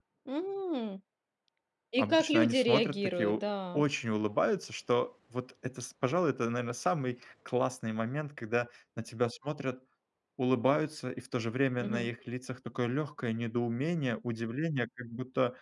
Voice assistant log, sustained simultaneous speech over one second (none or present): present